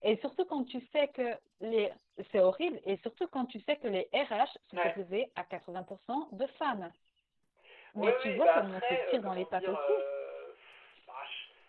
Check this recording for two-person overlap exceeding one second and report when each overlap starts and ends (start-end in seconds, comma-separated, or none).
8.0-9.9